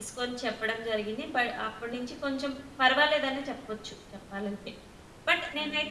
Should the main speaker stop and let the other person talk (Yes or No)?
No